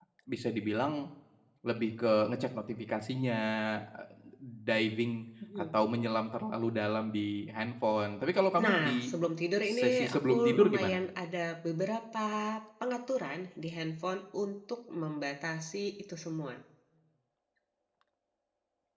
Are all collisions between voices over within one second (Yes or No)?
No